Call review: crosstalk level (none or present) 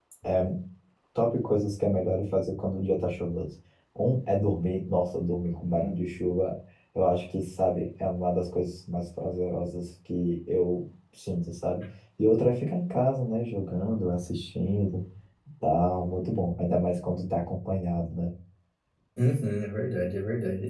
none